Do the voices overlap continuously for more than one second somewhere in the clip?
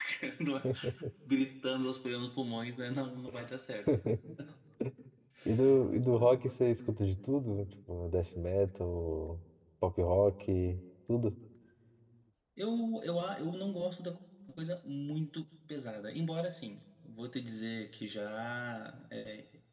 No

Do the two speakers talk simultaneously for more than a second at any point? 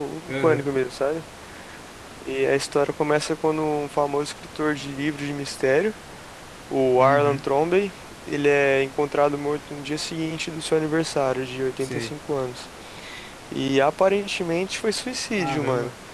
No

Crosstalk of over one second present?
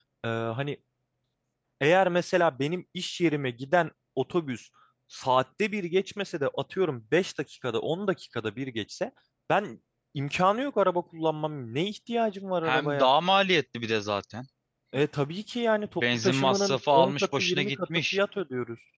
Yes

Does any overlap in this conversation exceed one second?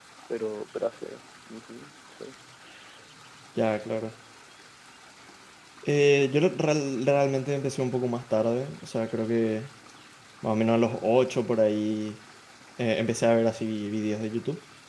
No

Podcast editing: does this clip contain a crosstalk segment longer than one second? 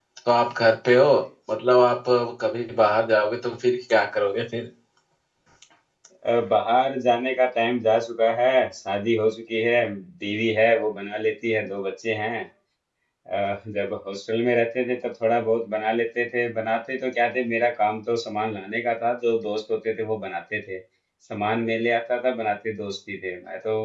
No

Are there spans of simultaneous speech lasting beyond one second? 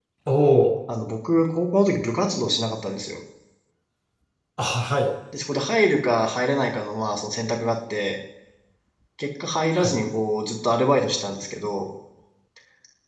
No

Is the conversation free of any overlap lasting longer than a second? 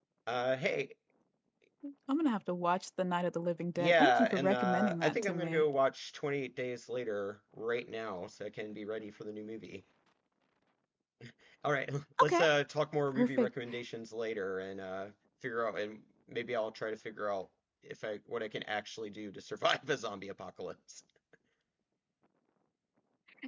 No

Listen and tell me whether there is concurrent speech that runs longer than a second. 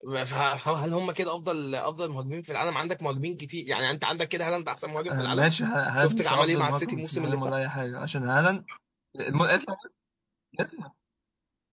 Yes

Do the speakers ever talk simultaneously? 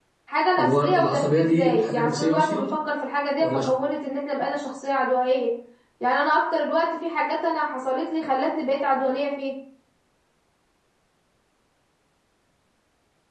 Yes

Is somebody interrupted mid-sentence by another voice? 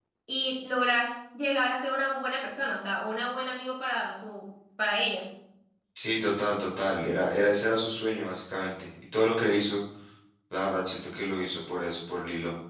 No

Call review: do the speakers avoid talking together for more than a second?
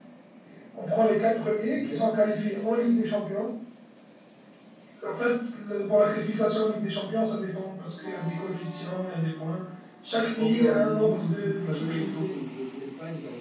No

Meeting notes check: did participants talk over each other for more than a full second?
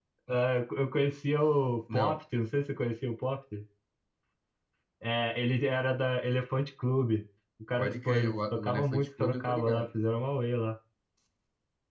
Yes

